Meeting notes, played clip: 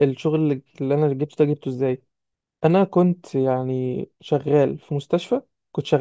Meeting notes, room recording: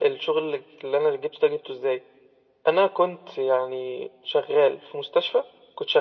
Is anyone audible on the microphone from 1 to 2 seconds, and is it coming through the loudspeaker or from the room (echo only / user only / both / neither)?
echo only